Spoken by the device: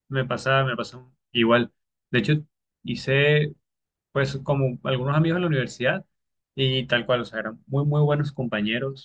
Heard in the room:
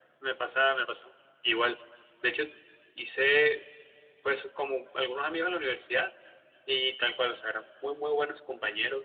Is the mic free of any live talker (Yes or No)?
Yes